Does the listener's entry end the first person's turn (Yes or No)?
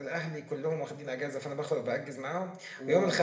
No